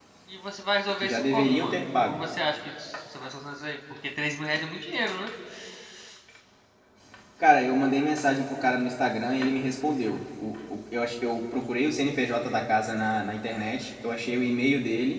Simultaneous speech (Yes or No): Yes